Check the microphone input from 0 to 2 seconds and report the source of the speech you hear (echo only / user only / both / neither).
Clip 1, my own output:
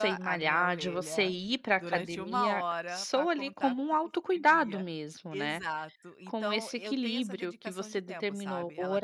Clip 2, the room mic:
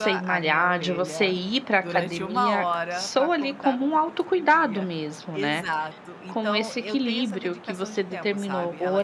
echo only